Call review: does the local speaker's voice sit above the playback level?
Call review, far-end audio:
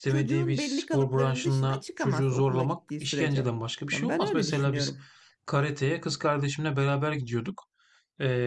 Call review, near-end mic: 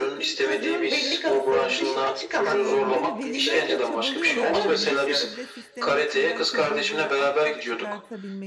No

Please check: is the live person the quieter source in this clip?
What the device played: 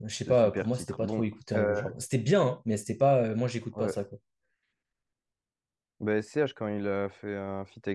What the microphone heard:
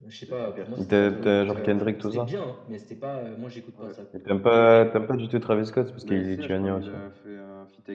No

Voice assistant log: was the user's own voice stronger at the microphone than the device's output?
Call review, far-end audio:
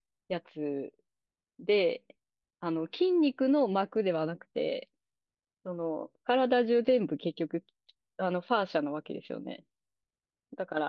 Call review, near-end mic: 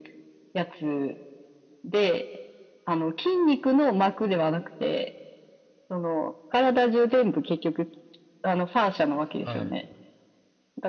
No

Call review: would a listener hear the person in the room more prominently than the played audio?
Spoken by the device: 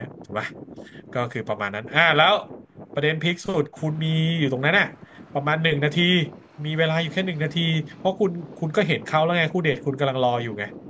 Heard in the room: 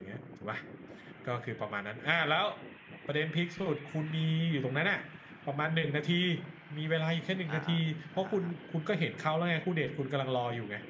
No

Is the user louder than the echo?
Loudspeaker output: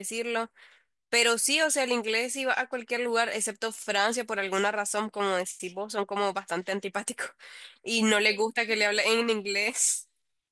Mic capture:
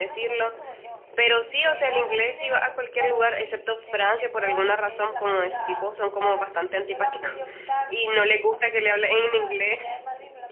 No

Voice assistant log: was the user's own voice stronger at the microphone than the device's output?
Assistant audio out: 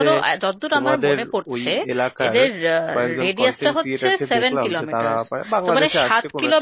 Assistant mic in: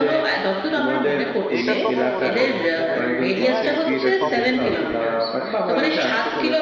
No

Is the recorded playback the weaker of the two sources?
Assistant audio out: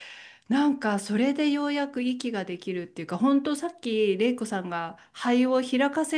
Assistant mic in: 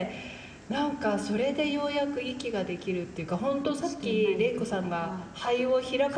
No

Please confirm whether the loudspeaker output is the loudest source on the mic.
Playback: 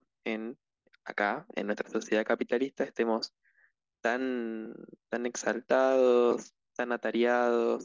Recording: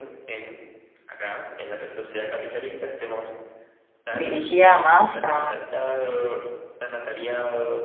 No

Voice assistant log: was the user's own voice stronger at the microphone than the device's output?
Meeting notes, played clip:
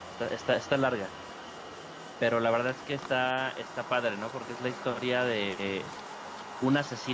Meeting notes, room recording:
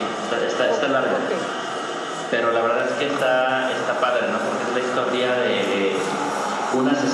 No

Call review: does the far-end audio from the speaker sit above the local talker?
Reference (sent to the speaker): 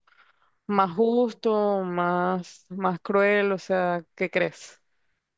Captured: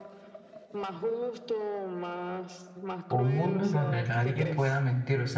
No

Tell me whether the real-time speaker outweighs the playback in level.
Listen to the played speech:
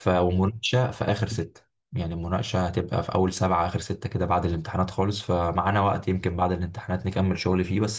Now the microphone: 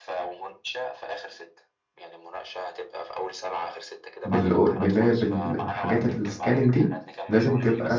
Yes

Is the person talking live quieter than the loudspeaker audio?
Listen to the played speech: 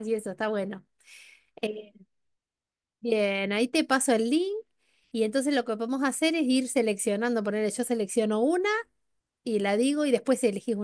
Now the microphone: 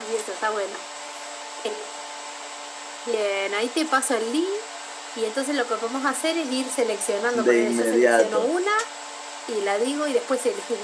No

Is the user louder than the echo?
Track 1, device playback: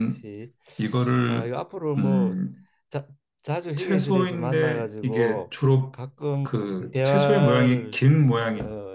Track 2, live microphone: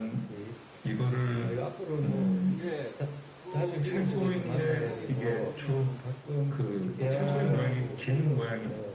No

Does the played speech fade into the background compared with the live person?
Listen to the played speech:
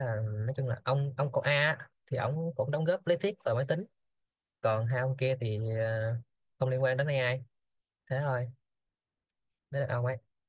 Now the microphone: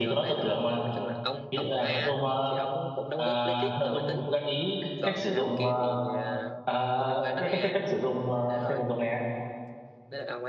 Yes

